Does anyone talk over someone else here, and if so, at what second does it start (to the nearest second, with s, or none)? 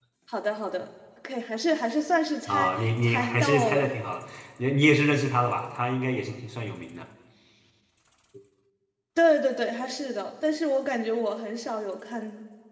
2 s